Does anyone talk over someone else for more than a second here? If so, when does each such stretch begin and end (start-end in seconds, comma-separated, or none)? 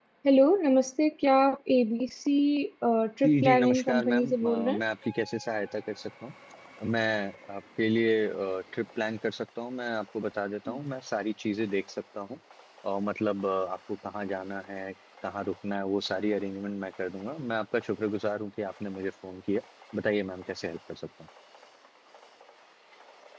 3.2-4.8